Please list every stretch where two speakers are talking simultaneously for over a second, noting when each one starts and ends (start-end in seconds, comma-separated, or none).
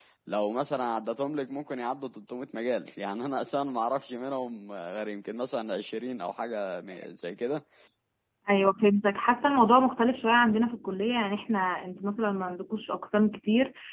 none